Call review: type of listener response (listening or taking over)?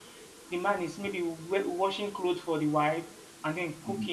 listening